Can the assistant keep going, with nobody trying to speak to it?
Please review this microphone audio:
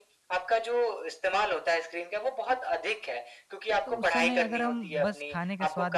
No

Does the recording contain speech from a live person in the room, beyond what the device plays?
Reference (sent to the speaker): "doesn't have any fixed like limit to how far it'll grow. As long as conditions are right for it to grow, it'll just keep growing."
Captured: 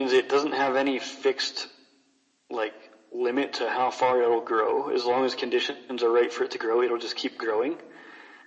No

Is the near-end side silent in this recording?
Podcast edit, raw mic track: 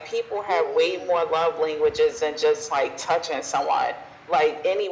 Yes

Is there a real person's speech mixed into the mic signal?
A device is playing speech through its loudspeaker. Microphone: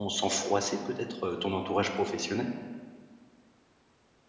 Yes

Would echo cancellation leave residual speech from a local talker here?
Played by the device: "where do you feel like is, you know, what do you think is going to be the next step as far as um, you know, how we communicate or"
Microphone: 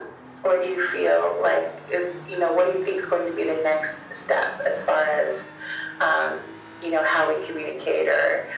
No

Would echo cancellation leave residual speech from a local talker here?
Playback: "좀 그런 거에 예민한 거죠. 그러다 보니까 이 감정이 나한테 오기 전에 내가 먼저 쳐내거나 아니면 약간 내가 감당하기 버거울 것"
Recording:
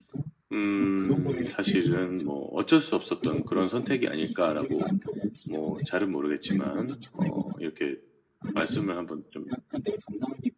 Yes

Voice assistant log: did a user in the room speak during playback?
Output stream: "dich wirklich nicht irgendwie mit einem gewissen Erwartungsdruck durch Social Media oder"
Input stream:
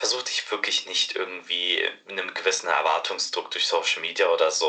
No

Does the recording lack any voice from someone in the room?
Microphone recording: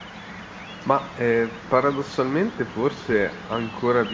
No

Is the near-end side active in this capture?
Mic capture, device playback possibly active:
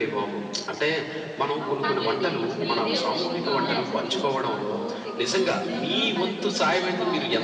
Yes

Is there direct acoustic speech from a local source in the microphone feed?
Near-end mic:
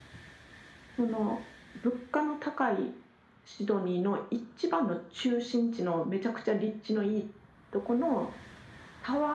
No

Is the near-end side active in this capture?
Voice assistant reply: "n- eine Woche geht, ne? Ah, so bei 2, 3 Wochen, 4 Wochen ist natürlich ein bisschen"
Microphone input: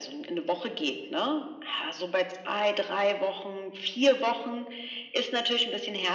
No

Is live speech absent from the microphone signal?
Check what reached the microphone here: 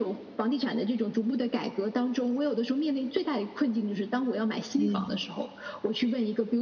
No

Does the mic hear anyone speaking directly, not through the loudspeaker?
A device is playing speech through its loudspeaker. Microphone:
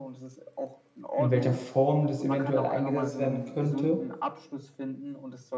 Yes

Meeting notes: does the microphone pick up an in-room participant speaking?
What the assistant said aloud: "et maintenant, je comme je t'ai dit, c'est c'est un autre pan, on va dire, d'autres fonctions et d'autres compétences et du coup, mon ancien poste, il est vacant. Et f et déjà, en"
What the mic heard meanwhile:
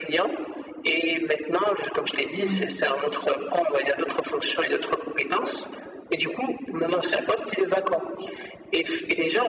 Yes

